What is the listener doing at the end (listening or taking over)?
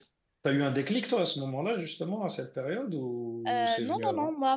taking over